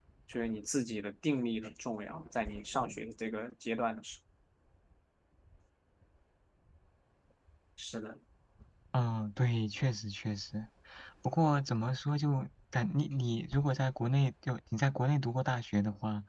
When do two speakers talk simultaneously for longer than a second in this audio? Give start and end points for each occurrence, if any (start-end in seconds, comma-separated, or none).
none